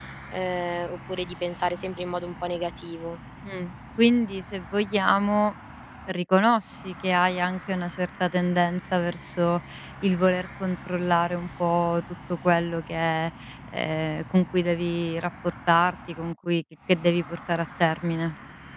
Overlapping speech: No

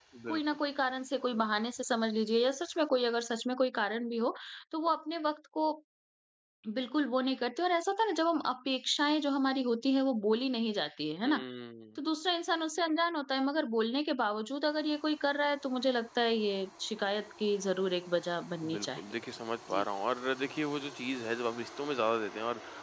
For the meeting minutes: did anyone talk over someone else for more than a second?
No

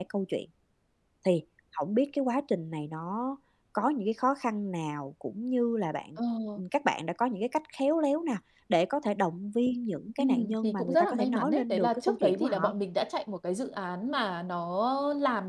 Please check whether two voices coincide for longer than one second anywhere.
Yes, from 10.2 s

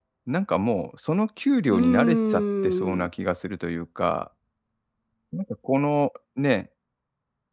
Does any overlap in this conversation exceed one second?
Yes, from 1.7 s

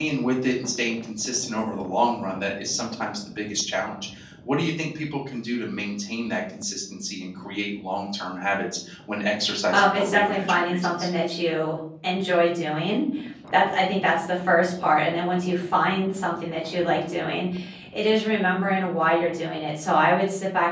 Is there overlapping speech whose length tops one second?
Yes, from 9.7 s

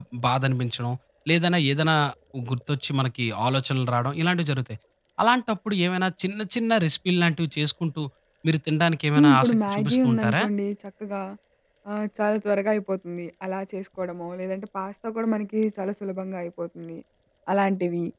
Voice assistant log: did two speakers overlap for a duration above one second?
Yes, from 9.2 s

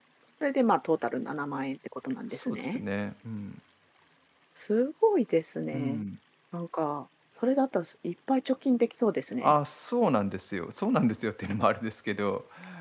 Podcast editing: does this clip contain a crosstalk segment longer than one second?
No

